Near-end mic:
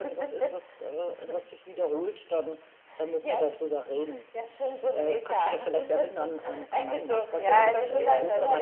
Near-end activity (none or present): present